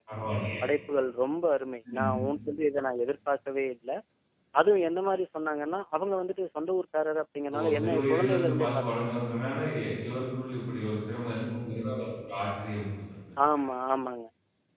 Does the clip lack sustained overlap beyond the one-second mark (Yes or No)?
No